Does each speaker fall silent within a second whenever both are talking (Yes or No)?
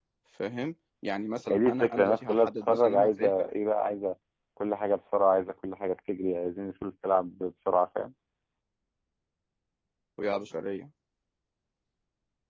No